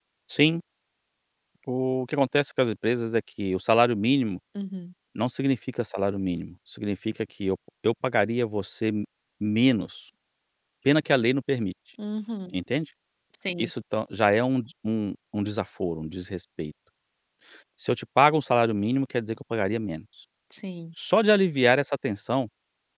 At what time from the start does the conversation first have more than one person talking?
none

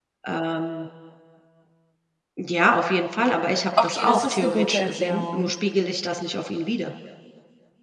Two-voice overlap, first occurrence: 3.8 s

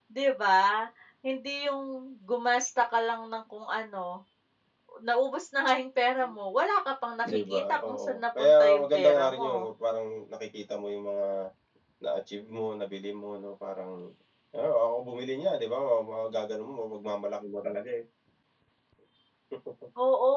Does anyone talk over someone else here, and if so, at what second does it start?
7.3 s

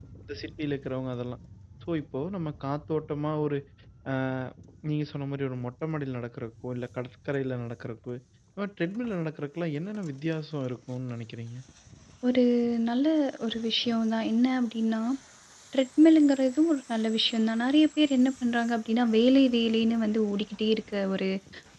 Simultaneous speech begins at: none

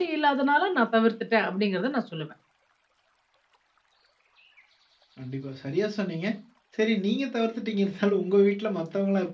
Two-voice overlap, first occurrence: none

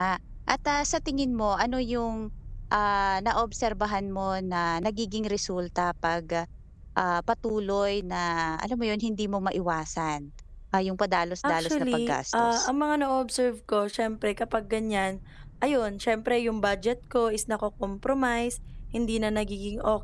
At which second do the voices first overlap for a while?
11.4 s

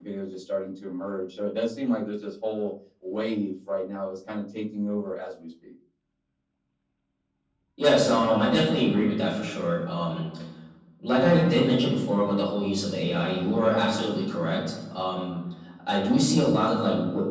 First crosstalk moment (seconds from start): none

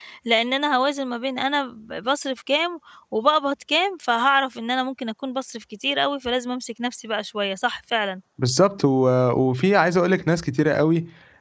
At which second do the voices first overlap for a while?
none

